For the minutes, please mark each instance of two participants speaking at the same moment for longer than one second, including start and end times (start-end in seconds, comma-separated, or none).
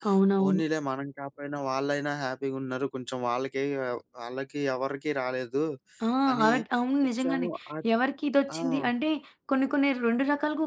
none